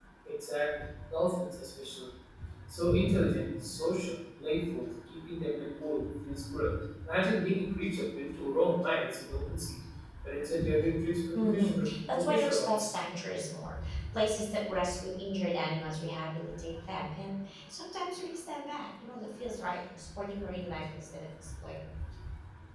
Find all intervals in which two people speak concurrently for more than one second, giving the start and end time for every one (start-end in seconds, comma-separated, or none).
11.3-12.9